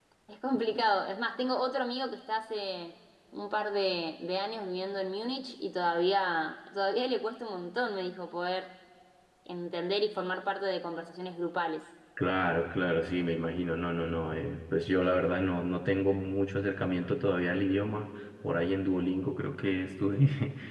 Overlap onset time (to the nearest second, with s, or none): none